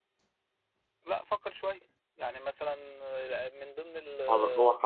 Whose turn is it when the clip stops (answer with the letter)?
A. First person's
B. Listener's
B